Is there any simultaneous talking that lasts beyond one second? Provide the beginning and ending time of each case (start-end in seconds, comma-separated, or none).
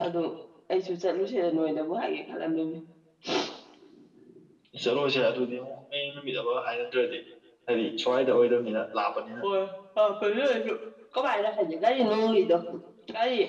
none